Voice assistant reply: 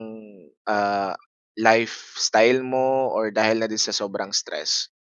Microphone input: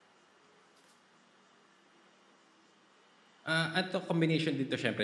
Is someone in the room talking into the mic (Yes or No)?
Yes